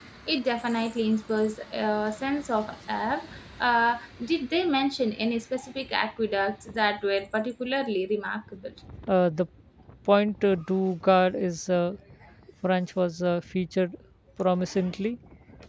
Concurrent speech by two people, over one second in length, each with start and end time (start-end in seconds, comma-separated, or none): none